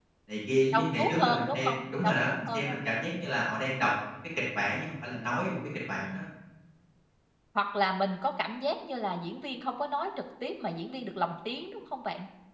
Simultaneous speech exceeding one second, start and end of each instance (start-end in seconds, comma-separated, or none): 0.7-2.8